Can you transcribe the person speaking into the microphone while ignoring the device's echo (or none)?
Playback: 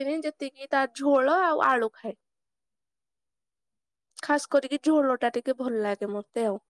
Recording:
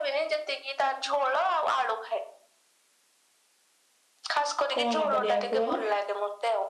କଣ କରିବାକୁ ବଲେ।